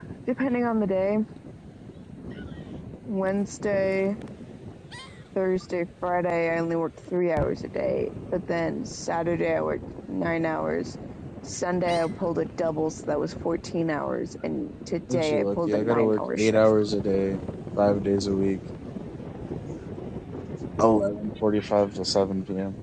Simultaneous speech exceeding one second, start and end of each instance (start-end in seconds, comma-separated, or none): 15.1-16.6